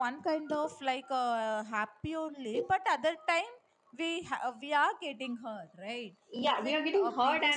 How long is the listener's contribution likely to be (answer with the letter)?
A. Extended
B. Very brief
A